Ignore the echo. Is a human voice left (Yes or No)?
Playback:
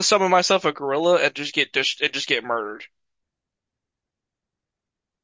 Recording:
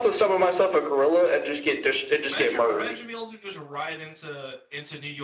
Yes